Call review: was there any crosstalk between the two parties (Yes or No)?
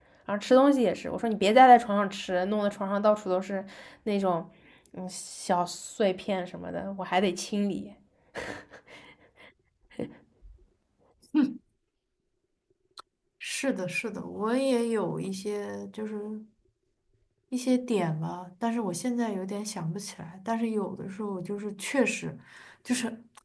No